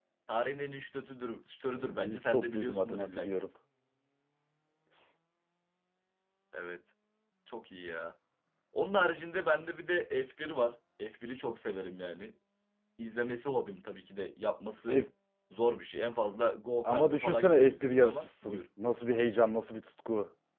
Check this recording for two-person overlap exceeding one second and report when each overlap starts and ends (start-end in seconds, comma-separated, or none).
1.8-3.5, 16.8-18.6